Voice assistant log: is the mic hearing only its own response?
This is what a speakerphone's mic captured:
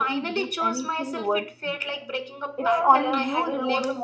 No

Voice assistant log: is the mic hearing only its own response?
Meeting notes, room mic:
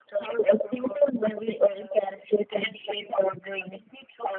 Yes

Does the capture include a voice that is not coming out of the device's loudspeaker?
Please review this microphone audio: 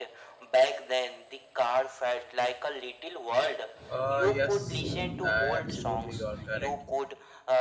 Yes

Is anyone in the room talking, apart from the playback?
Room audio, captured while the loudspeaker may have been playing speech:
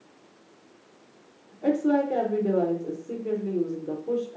Yes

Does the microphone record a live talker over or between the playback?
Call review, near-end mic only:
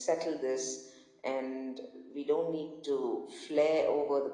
No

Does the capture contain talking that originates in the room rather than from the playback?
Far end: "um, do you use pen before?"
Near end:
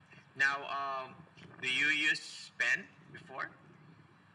No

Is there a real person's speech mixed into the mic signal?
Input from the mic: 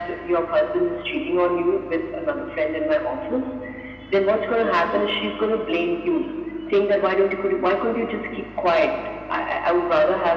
No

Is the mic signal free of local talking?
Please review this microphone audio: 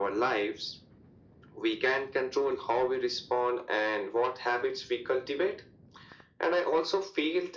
Yes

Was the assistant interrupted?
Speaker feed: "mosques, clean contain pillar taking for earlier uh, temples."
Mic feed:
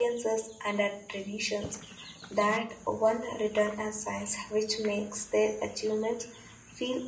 Yes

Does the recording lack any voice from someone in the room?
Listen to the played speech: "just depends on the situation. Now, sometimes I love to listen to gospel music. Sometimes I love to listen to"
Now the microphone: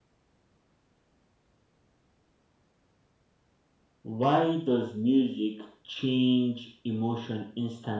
No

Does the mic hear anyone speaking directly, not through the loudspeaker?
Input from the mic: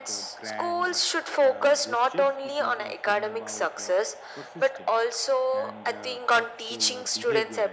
Yes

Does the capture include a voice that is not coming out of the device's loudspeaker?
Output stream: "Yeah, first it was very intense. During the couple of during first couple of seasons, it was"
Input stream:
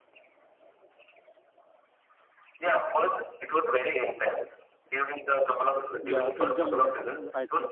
Yes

